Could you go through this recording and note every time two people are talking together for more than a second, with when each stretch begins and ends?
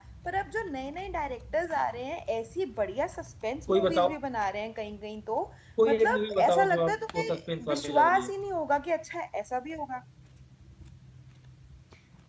5.9-8.3

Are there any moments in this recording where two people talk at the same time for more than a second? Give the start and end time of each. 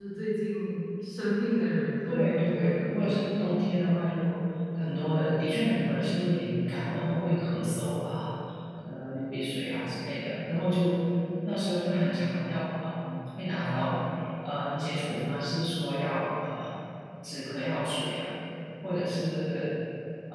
2.1-3.3

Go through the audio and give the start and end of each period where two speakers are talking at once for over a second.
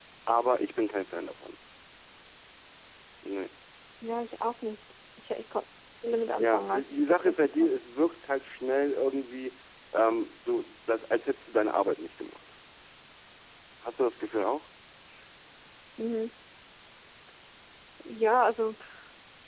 6.4-7.7

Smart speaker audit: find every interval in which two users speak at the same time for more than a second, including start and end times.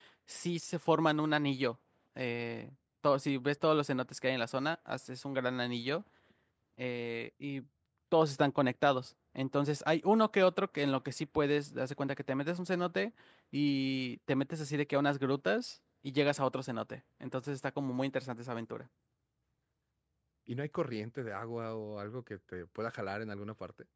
none

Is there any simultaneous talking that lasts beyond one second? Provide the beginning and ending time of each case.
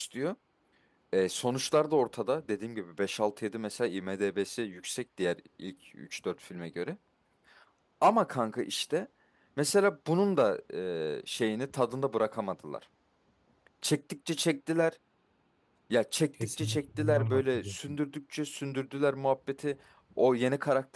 16.6-18.0

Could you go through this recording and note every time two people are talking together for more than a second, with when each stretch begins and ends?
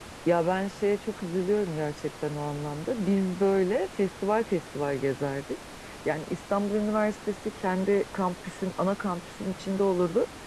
none

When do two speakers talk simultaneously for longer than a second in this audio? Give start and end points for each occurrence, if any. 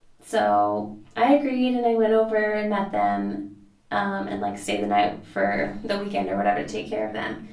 none

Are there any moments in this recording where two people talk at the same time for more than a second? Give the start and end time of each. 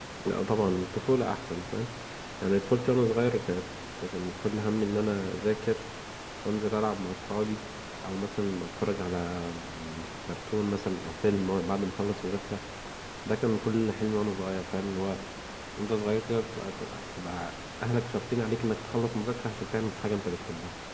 none

